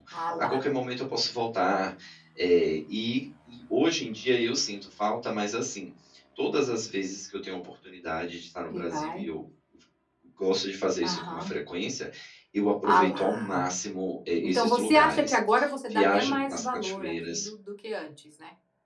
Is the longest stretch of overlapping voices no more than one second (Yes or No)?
No